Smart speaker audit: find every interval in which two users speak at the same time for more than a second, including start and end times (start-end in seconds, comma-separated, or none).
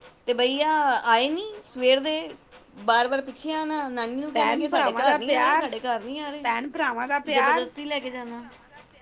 4.3-5.7